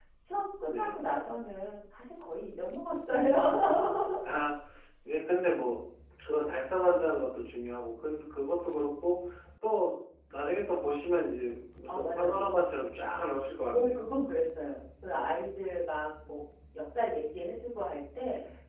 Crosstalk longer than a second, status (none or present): none